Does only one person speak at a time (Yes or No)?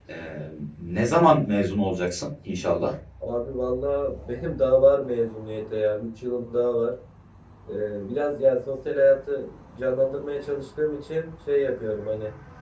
Yes